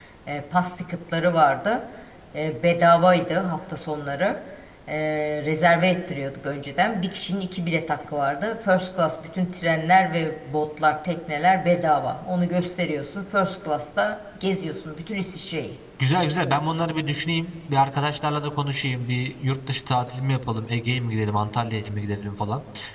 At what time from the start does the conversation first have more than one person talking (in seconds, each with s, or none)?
none